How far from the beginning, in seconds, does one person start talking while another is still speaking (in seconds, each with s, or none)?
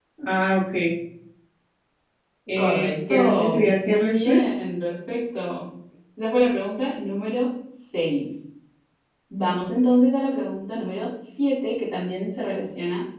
2.6 s